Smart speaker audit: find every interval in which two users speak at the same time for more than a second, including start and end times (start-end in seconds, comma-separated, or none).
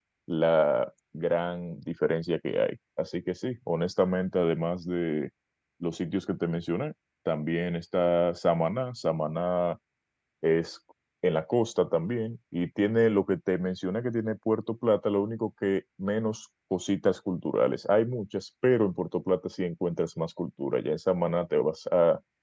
none